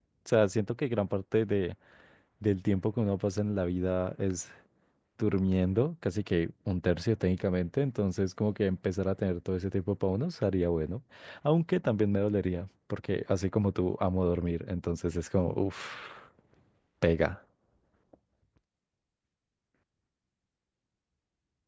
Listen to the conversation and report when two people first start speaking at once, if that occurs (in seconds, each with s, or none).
none